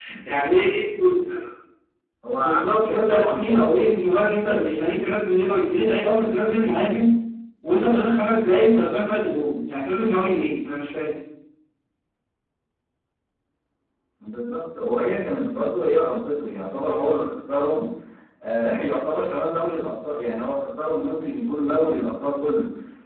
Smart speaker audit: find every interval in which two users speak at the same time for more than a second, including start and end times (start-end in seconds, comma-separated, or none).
2.4-3.7